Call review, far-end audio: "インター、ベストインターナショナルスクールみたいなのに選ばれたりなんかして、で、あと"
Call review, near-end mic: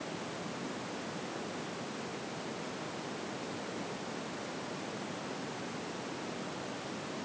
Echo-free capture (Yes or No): Yes